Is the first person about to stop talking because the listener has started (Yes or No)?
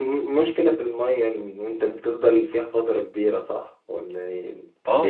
Yes